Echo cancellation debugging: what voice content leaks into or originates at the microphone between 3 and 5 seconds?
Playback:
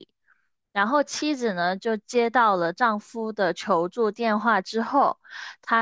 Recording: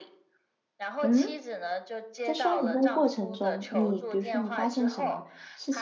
both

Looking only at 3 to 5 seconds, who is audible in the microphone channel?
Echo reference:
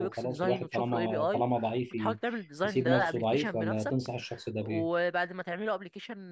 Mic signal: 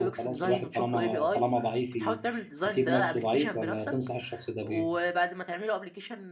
echo only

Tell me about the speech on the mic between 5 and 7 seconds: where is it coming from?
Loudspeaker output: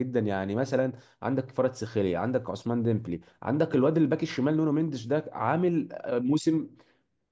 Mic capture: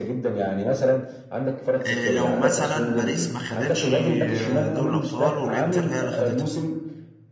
both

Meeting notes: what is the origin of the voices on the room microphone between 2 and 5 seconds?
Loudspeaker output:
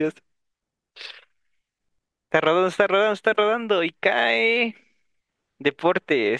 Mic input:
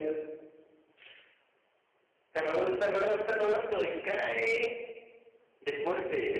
echo only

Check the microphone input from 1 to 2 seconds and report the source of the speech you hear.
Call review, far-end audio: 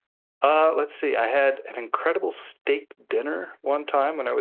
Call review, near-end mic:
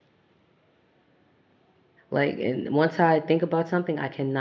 neither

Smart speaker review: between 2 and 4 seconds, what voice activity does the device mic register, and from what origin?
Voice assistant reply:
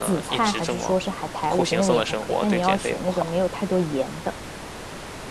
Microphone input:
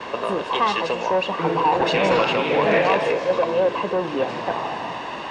both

